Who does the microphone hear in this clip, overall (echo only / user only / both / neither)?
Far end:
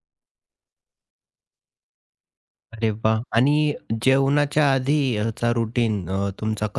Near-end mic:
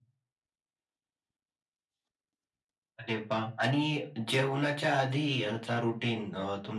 echo only